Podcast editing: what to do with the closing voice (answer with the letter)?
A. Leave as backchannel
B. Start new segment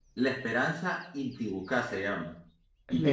A